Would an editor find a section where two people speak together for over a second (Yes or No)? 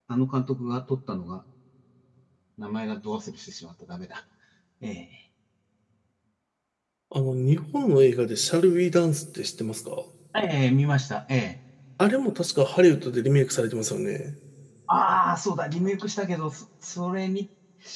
No